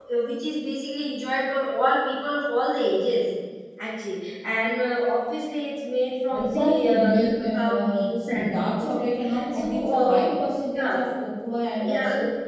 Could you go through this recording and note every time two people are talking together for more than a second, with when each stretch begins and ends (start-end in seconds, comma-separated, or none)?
6.4-10.2